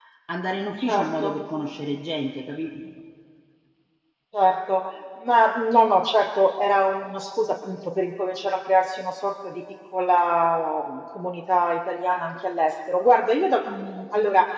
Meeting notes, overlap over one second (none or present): none